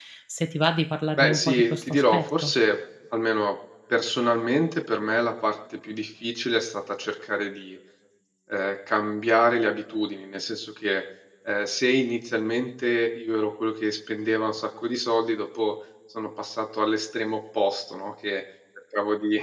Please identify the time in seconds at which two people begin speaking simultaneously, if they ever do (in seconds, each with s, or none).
1.1 s